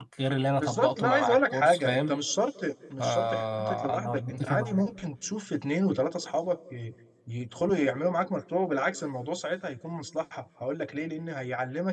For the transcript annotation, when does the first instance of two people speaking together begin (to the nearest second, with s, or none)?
1 s